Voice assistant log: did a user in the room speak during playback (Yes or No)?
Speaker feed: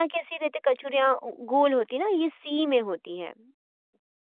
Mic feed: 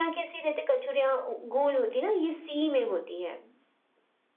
No